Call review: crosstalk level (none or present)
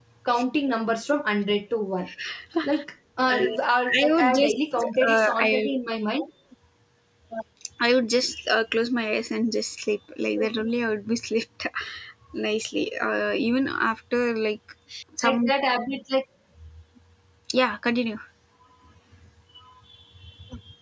present